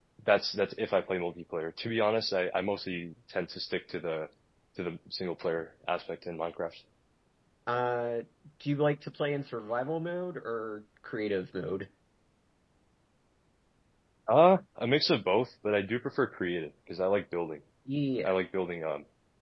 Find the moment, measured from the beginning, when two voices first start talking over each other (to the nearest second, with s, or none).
none